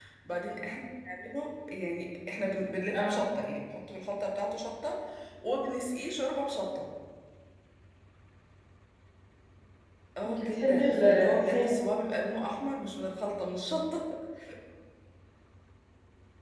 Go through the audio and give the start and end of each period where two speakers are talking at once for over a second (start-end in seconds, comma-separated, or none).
10.2-11.7